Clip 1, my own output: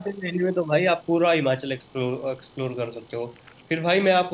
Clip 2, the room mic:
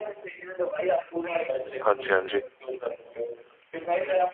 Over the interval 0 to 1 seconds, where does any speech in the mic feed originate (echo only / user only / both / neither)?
echo only